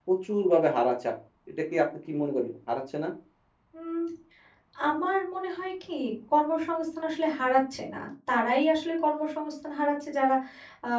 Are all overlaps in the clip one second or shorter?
Yes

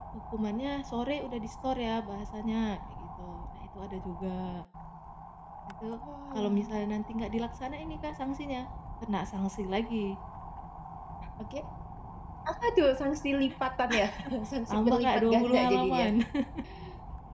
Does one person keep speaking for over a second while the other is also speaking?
Yes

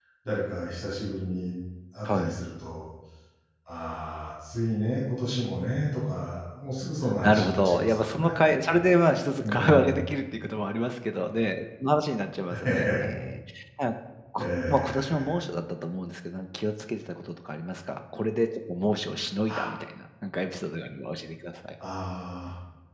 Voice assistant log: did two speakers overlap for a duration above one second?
Yes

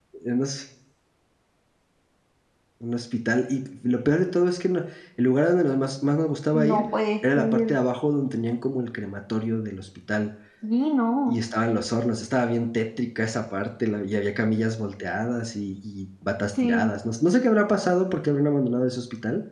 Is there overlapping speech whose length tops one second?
No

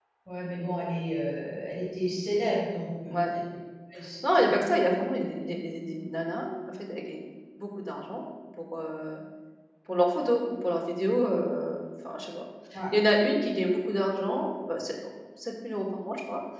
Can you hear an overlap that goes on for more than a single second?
No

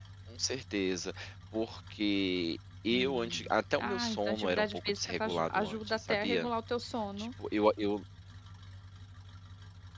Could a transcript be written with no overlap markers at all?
No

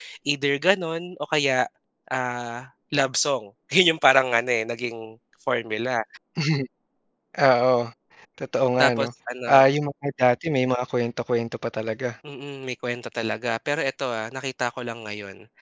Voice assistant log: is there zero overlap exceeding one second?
Yes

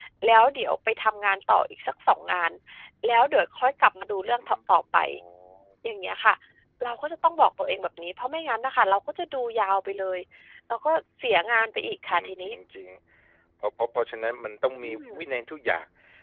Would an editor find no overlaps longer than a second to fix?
Yes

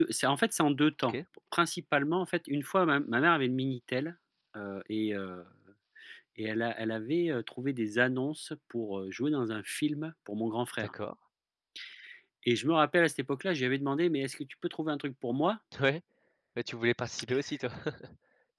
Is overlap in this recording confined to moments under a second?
Yes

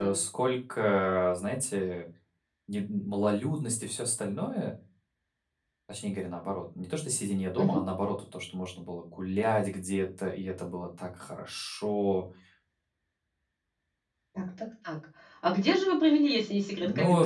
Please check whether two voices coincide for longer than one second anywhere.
No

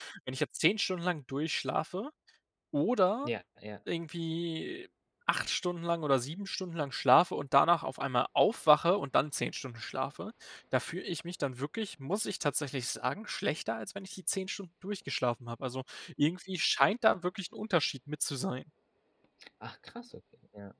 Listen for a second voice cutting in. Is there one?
No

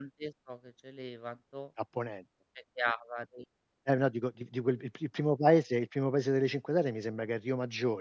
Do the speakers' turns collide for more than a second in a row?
No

